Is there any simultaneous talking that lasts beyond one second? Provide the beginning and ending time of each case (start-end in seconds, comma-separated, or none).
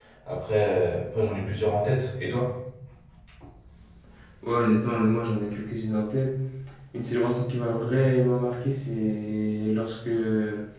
none